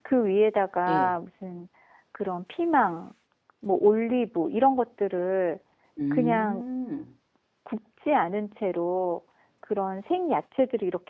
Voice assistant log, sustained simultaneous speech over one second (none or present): none